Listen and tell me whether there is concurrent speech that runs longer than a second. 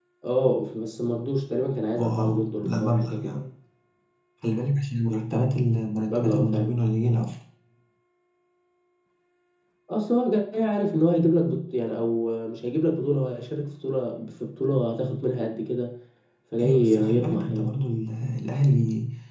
Yes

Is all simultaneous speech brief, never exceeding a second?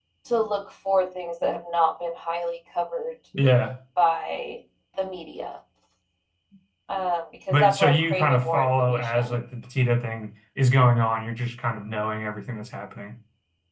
No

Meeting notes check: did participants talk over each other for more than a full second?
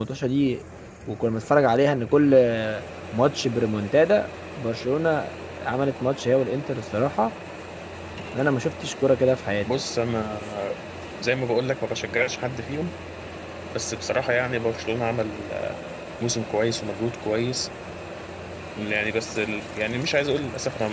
No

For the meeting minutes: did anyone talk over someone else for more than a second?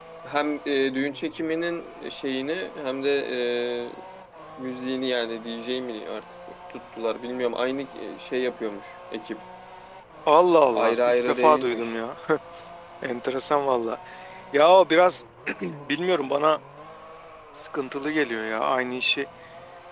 Yes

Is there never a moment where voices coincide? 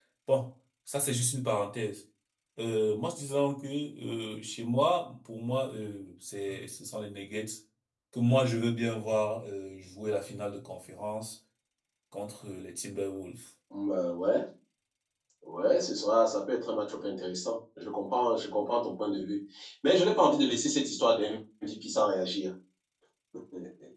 Yes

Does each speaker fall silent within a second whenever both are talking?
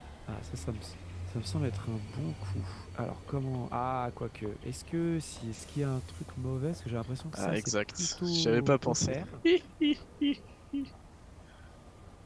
No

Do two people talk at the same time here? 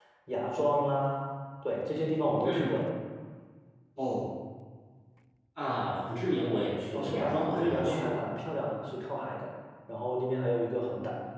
Yes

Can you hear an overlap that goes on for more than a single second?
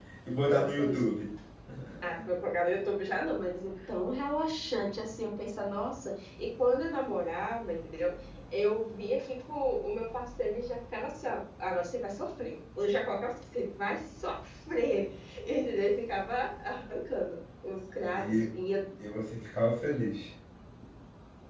No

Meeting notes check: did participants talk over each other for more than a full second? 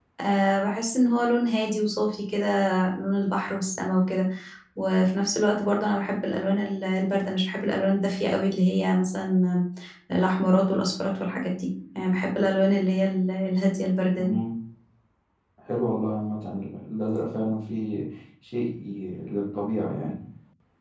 No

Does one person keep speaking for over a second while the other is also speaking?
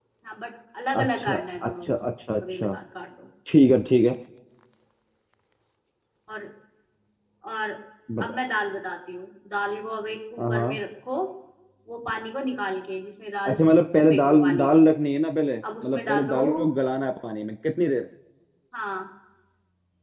Yes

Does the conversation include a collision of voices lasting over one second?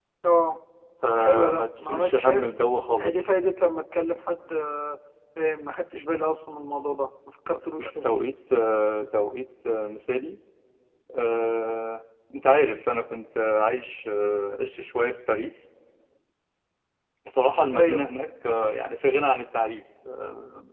Yes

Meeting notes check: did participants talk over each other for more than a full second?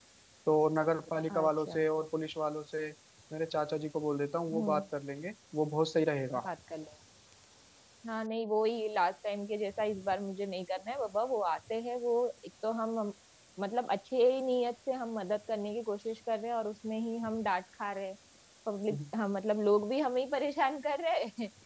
No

